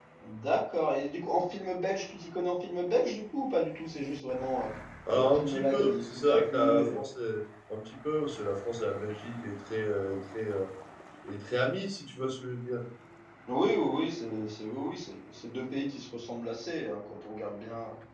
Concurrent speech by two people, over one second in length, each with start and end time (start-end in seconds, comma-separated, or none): 5.2-7.0